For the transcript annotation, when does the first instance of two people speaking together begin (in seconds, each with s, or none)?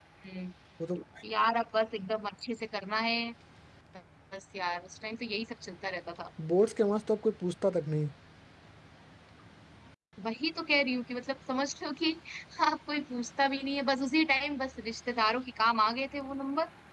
none